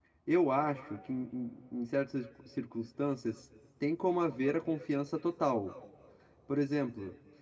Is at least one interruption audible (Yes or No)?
No